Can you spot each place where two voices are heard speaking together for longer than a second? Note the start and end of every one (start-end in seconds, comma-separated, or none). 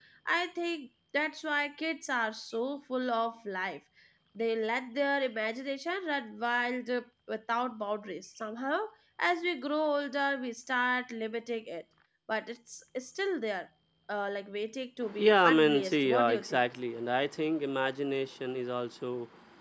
15.2-16.6